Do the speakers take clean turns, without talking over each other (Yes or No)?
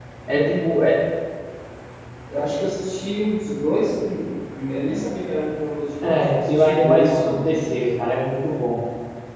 No